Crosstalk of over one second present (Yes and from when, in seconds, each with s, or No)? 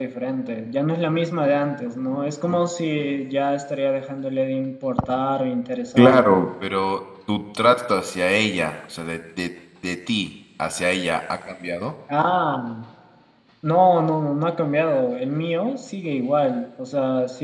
No